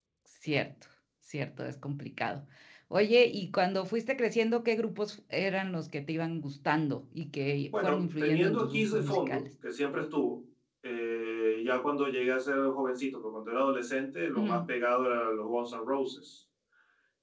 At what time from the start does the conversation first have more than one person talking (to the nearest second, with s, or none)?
8 s